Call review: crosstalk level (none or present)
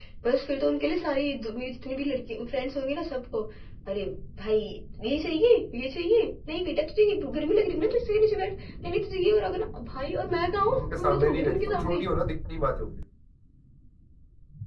present